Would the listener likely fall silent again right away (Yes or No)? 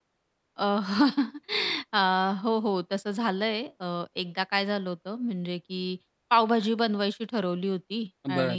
Yes